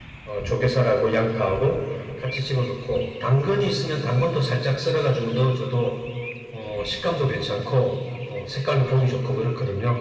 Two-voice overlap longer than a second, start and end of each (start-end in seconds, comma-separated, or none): none